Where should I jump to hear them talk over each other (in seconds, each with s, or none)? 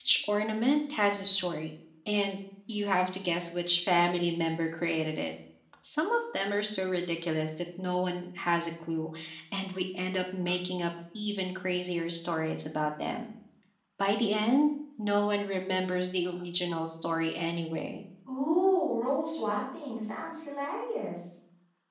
none